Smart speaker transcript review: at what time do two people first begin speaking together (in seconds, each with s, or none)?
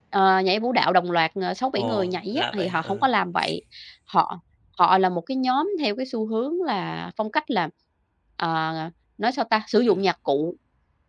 1.8 s